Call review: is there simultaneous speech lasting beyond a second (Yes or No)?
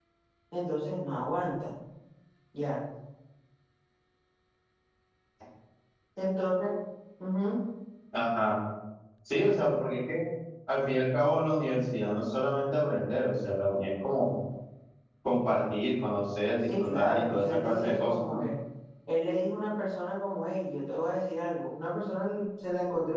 Yes